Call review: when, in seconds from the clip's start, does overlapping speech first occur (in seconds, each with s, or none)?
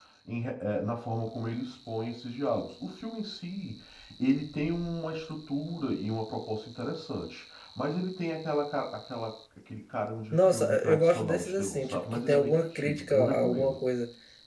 10.3 s